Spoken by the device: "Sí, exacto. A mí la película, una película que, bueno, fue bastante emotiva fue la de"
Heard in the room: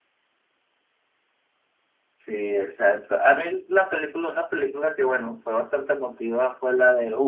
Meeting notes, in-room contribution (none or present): none